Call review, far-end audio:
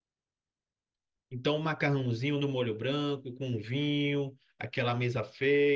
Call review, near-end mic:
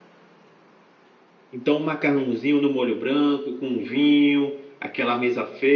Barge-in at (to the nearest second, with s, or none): none